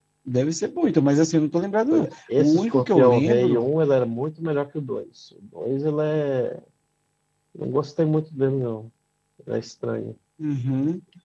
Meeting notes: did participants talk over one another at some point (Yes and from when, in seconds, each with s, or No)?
Yes, from 1.9 s